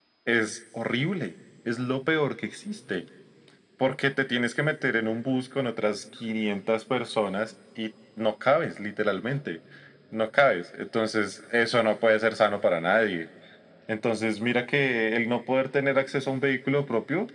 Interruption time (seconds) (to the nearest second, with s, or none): none